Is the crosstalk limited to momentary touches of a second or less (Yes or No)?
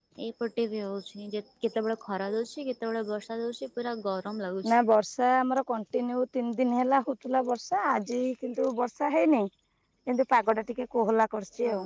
Yes